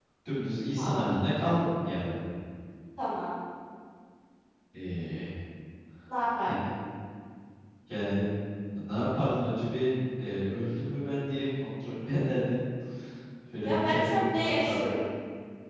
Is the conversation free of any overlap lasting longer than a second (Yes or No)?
No